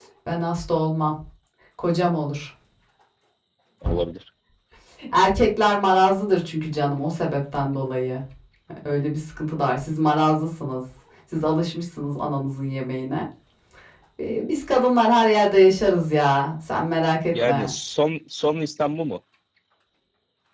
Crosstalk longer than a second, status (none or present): none